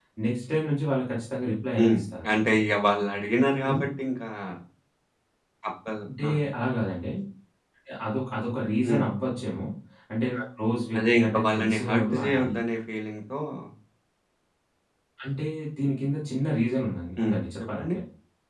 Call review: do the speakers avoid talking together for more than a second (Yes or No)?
No